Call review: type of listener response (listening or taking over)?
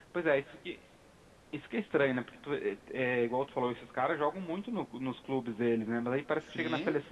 listening